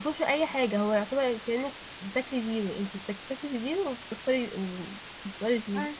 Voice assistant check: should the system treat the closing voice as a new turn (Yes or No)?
Yes